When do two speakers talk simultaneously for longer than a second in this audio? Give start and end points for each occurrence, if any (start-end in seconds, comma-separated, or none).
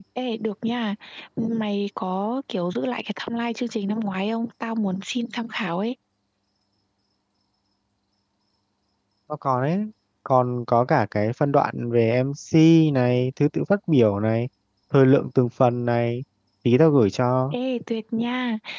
none